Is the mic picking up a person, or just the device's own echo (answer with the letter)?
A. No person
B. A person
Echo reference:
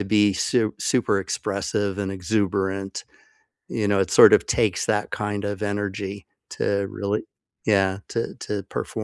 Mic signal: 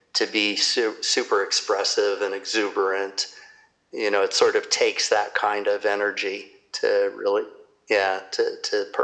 A